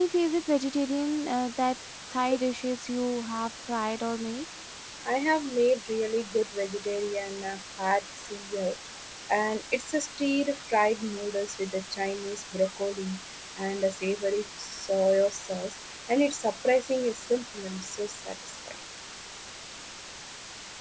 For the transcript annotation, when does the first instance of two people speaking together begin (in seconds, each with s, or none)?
none